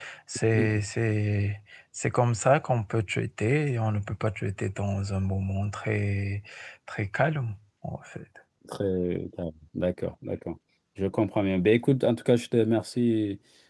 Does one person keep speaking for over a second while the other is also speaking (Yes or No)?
No